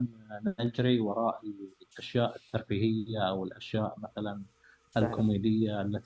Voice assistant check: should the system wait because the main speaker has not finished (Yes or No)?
Yes